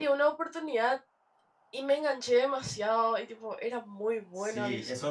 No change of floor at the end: No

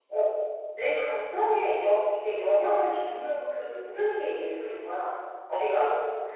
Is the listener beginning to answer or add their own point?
No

